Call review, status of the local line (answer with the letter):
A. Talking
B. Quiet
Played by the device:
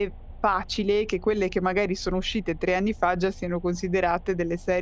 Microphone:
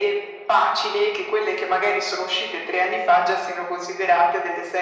B